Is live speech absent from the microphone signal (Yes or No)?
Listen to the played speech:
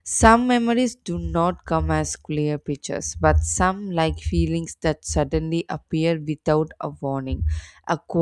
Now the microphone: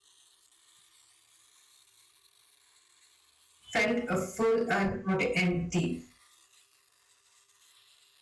No